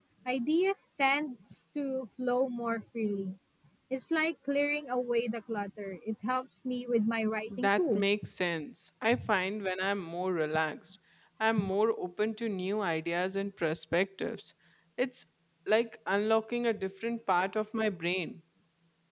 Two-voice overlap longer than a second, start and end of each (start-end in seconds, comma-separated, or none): none